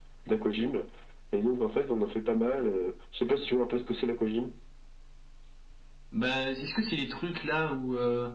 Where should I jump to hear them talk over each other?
none

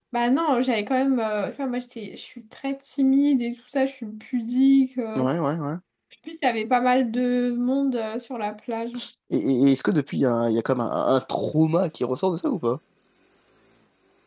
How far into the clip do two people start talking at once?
none

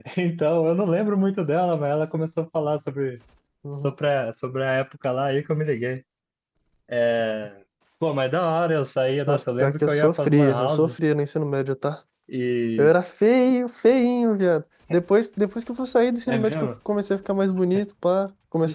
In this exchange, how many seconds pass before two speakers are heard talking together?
9 s

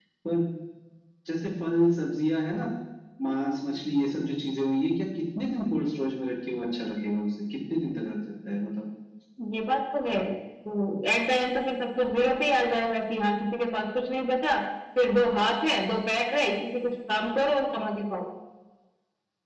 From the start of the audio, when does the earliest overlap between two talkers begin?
none

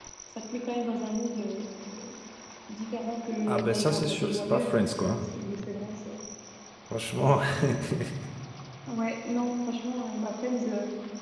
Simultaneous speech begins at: 3 s

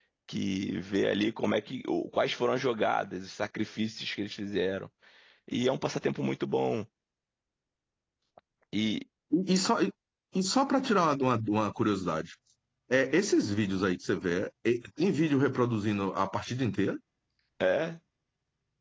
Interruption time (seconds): none

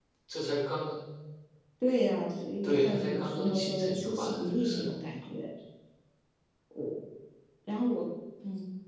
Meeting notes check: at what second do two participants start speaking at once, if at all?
3 s

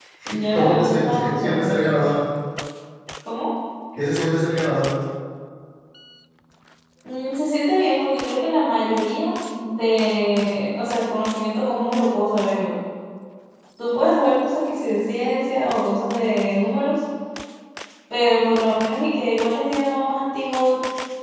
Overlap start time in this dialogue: 1 s

